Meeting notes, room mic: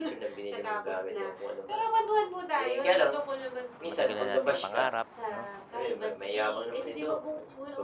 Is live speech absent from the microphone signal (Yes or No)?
No